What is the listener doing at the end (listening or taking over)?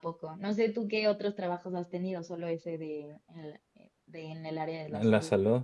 taking over